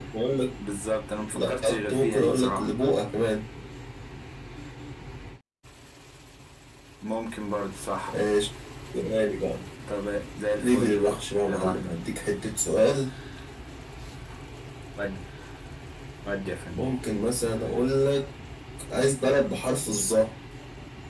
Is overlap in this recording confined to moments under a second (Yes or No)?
No